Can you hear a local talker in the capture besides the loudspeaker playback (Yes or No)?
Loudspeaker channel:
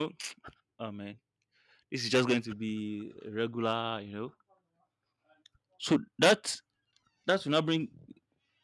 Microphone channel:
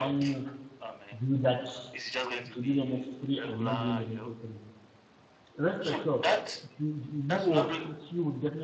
Yes